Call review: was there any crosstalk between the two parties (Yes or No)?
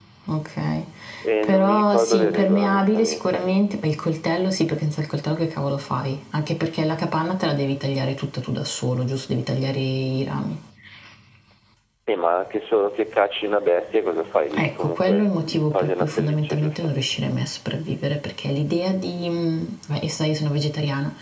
Yes